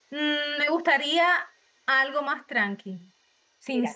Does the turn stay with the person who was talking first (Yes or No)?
Yes